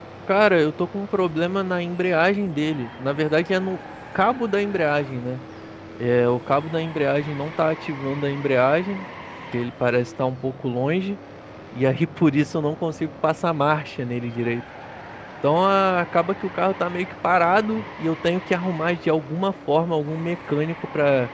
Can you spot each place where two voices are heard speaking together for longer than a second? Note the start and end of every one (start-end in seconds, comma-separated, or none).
none